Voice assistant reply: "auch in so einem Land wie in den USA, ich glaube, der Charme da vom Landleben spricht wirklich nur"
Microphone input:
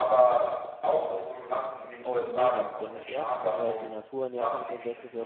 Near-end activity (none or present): present